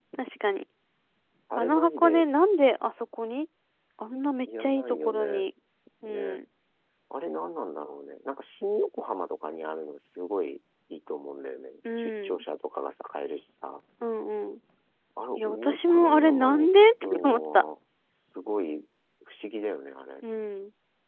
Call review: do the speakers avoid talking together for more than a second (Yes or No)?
No